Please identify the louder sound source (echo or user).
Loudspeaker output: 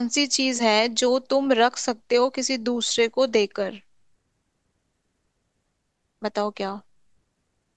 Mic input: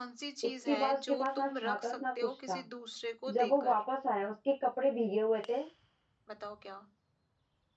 user